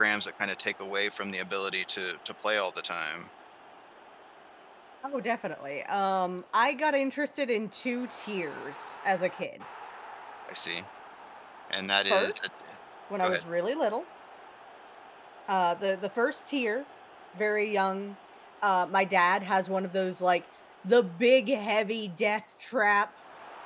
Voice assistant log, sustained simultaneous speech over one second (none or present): none